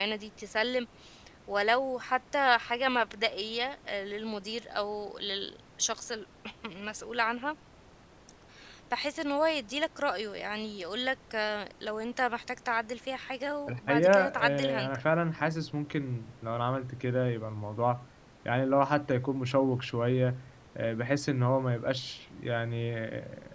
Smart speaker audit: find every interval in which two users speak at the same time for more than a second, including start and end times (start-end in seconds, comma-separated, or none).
13.7-15.0